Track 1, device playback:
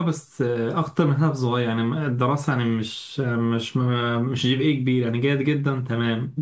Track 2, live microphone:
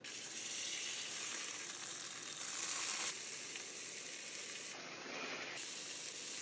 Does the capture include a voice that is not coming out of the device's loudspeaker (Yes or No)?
No